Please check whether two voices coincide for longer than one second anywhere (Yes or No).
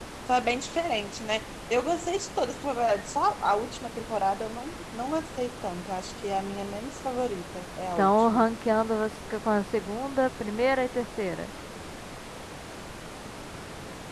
No